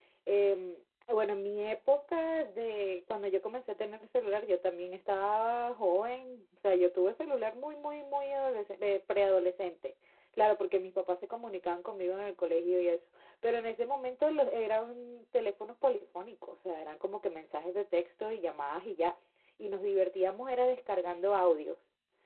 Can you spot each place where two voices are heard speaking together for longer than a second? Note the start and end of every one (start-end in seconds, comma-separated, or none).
none